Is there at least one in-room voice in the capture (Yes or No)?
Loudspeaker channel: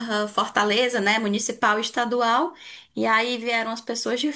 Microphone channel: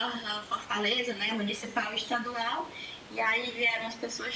No